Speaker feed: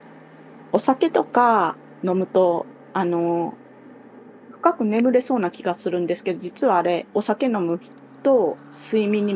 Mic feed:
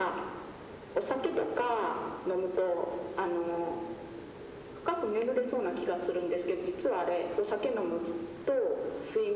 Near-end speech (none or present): none